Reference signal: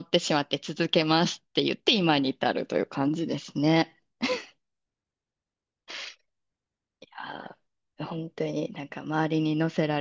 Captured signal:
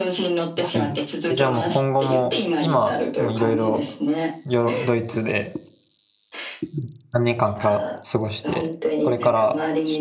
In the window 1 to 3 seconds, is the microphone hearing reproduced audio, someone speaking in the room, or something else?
both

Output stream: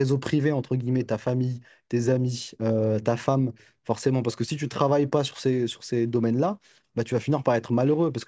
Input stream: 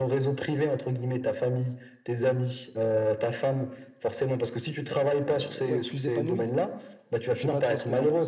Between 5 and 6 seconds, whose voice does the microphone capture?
both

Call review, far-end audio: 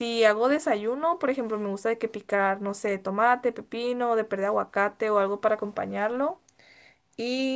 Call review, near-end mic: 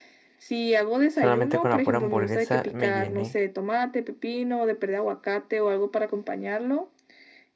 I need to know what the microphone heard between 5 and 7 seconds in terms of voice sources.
echo only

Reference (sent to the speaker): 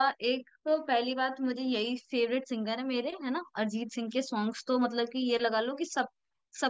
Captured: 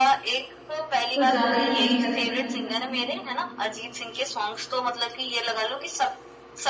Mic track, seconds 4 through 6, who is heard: echo only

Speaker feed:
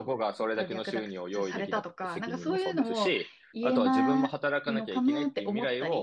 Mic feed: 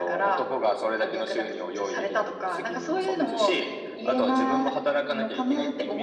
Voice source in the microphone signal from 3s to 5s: echo only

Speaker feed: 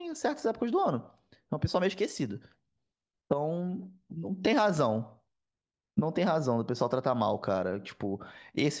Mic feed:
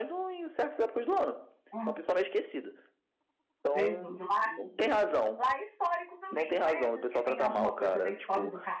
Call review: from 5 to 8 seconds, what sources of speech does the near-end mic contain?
both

